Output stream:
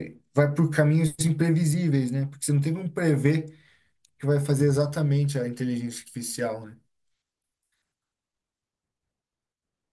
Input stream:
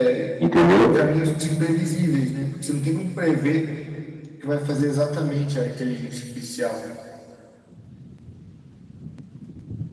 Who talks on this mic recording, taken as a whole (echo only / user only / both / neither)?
both